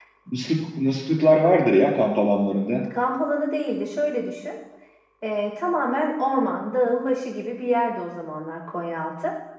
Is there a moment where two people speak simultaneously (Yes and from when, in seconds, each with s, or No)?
No